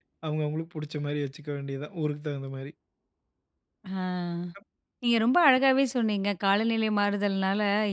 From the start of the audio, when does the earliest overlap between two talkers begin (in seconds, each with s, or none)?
none